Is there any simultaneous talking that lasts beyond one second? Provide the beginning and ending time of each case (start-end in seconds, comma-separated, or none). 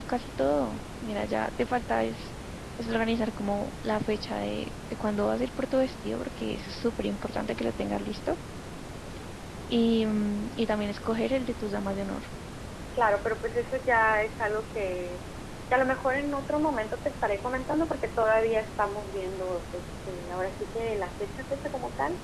none